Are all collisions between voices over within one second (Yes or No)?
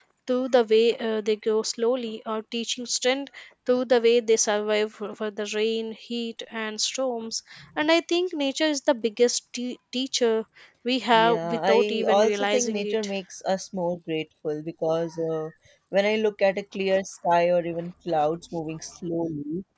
No